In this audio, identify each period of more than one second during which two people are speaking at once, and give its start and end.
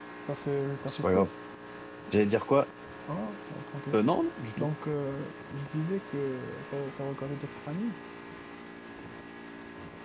none

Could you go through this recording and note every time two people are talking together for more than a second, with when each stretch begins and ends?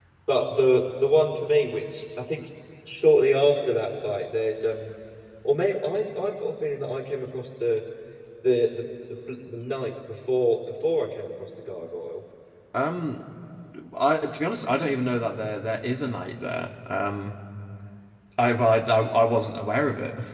none

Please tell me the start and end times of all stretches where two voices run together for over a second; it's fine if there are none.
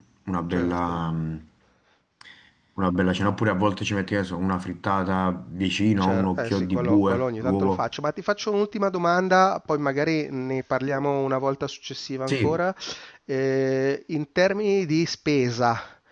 6.0-7.8

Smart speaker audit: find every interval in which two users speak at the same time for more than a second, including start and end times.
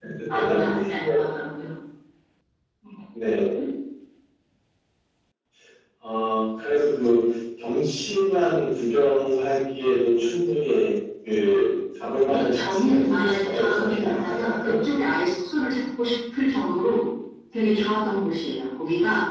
12.3-14.7

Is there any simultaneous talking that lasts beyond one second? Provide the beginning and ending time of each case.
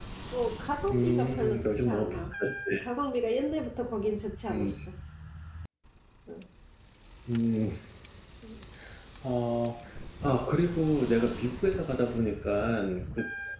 0.9-2.3

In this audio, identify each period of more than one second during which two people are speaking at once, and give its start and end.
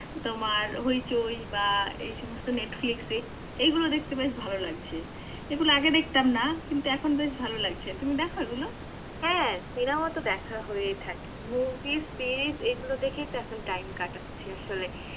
none

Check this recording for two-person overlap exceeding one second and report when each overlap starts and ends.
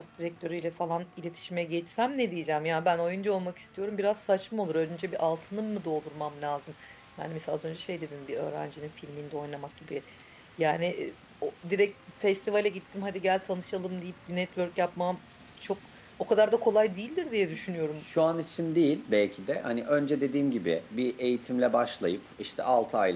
none

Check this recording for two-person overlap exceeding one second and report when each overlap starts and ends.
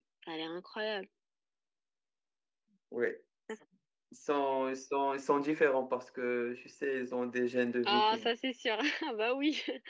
none

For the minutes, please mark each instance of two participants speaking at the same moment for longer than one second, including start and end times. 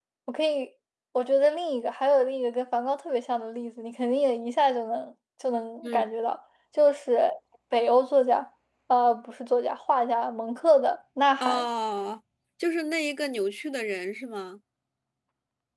none

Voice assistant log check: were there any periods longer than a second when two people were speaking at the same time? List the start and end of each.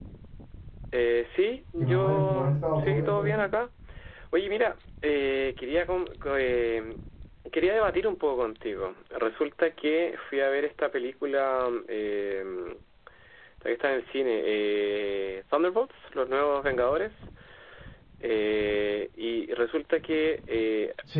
1.8-3.4

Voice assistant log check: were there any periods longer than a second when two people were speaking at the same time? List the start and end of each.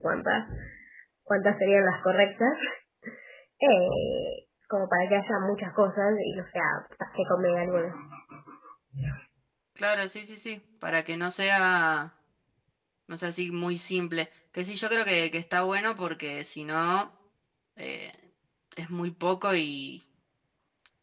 none

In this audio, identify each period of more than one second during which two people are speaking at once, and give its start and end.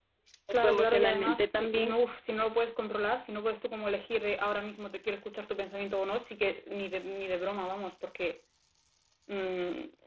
0.6-1.9

